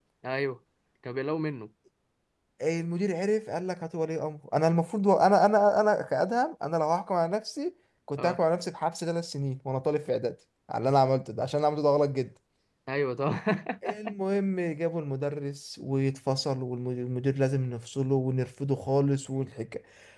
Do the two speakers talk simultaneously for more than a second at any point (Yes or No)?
No